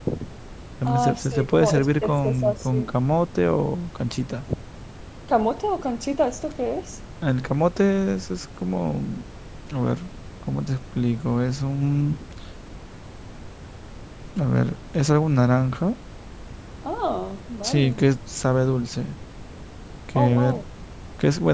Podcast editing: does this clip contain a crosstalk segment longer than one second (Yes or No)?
Yes